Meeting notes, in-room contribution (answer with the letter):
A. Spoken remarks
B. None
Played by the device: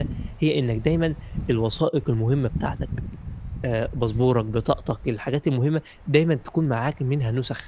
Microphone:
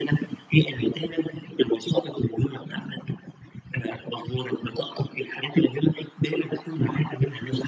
B